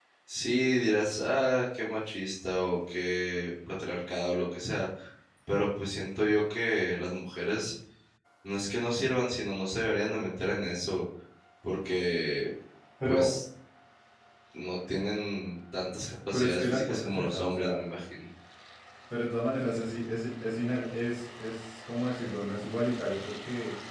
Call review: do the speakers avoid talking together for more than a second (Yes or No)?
No